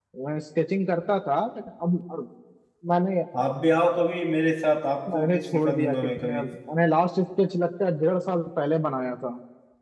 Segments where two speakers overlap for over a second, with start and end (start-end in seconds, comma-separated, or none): 5.1-6.4